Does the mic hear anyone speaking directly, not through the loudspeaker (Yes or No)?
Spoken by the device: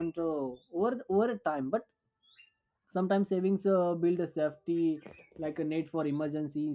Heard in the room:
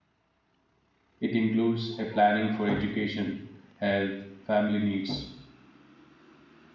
Yes